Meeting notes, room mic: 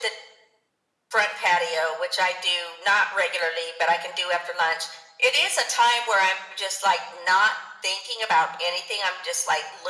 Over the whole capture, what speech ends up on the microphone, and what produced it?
echo only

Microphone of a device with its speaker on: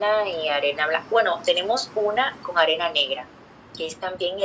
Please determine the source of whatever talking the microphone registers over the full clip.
echo only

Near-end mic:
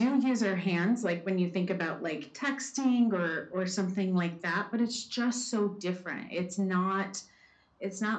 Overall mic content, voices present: echo only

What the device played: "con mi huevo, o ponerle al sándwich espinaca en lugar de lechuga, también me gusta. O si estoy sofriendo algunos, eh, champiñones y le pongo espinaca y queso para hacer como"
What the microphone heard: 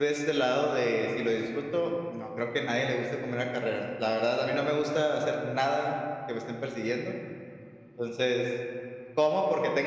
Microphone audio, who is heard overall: user only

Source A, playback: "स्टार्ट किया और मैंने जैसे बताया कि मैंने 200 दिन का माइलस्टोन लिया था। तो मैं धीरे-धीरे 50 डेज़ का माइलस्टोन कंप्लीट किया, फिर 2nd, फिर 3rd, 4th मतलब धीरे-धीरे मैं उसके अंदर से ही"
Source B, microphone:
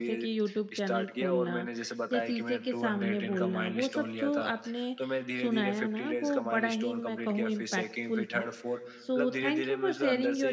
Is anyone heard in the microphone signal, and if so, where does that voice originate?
both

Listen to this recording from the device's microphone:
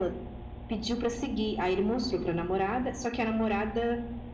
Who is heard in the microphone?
echo only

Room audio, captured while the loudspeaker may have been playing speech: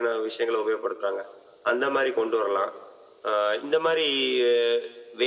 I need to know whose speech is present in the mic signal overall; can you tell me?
echo only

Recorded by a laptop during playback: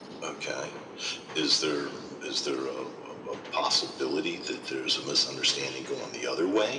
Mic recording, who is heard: echo only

